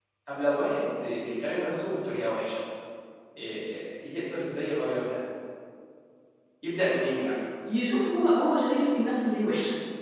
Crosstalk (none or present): none